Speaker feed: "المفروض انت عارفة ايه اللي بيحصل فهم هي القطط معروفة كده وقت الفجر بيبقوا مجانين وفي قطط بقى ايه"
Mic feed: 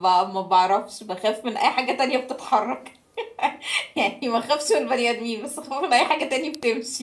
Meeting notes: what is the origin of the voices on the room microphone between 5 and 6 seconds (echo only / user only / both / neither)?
user only